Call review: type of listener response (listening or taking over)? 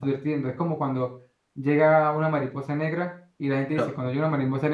listening